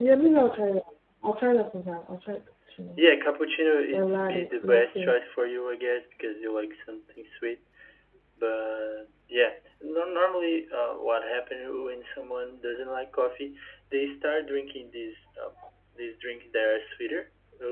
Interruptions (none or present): present